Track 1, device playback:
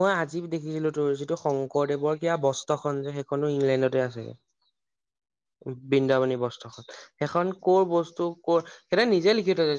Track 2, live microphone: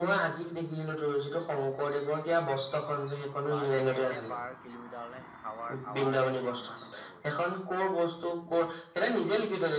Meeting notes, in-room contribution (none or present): present